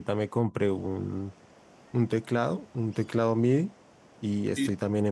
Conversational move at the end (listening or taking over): listening